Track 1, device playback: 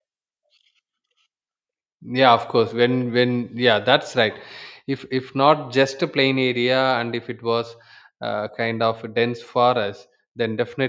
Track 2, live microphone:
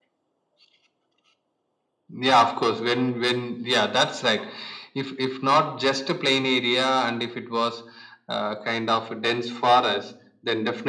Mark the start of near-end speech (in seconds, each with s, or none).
none